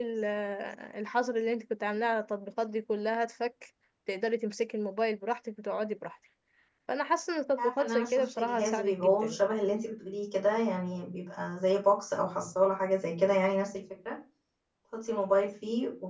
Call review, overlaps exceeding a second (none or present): present